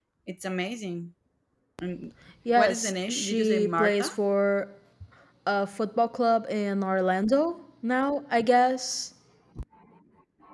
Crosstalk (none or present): present